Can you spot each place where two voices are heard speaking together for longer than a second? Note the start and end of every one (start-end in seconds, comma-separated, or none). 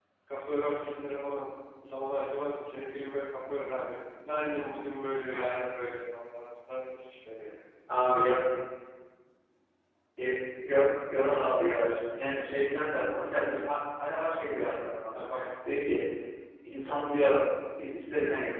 none